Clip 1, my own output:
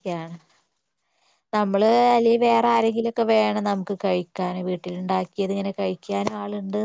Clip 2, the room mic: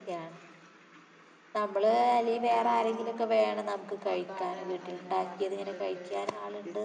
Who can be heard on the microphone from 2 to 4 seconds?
both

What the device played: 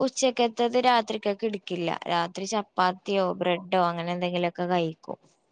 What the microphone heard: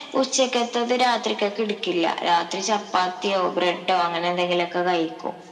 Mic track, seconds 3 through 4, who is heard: echo only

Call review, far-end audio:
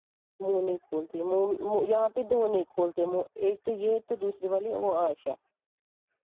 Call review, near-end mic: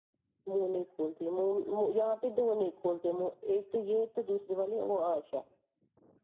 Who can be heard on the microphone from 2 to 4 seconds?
echo only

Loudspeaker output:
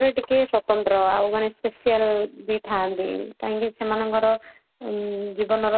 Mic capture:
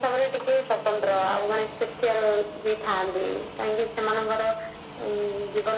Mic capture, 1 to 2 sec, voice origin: echo only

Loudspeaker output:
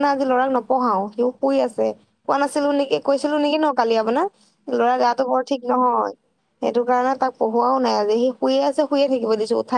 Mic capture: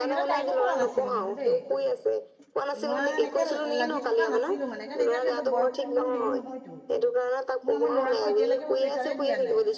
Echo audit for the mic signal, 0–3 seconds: both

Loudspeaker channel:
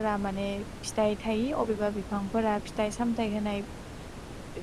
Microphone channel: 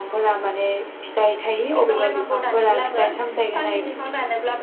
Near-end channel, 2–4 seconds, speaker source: both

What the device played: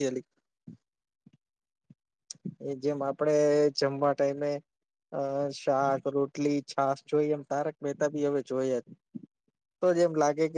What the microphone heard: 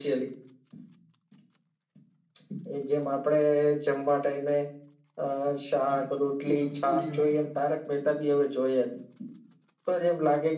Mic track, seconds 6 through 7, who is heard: both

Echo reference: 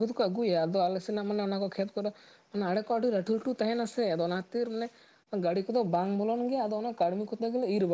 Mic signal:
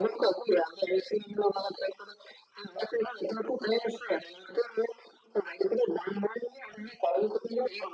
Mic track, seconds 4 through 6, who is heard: echo only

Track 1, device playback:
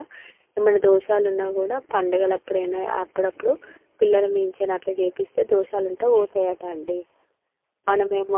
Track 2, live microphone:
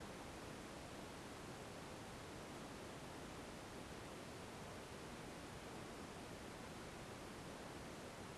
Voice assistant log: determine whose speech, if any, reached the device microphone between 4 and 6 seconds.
neither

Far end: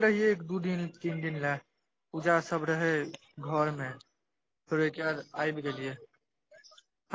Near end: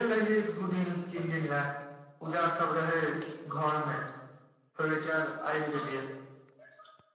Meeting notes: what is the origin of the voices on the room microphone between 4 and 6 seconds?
echo only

